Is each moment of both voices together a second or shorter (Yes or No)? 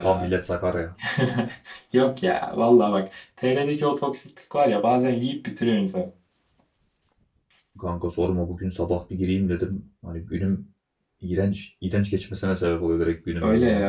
Yes